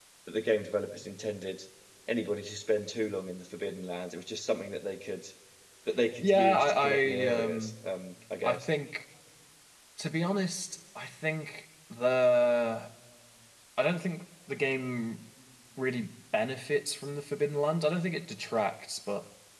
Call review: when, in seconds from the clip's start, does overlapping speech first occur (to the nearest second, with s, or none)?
6 s